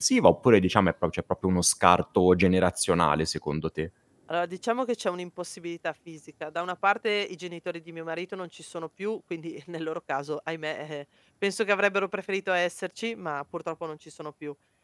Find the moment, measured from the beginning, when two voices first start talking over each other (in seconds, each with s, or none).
none